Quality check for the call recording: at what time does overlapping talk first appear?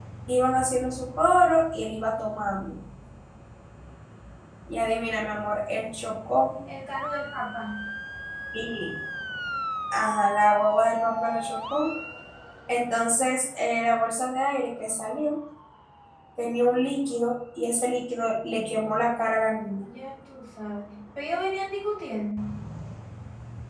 none

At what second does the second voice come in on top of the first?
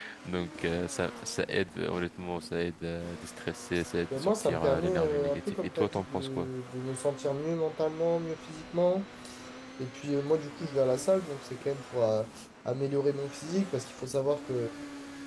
4.1 s

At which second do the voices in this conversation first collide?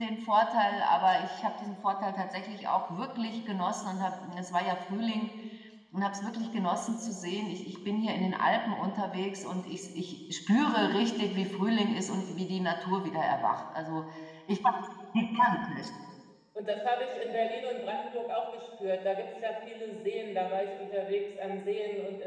none

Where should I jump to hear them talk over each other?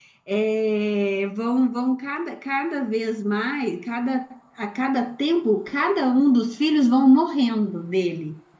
none

